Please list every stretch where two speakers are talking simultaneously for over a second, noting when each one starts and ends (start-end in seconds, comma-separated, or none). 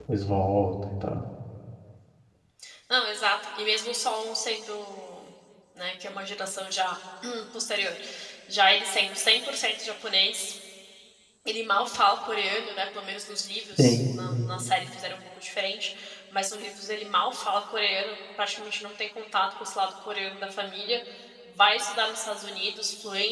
none